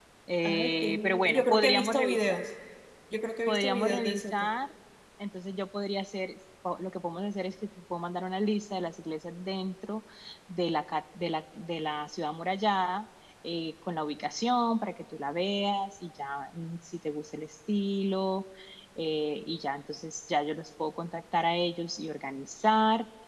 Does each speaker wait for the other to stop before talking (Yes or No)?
No